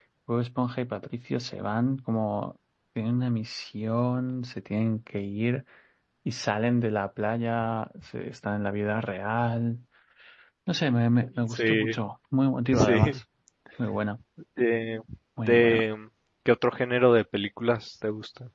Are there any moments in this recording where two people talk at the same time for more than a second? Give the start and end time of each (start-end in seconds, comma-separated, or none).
none